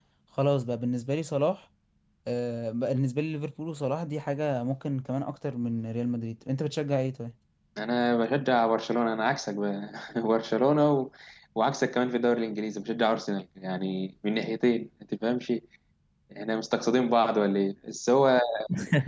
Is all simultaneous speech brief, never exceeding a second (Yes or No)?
Yes